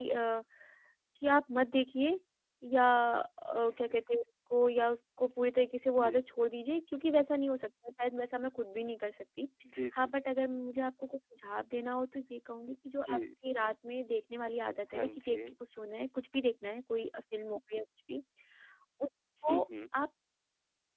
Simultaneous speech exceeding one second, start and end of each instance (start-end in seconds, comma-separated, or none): none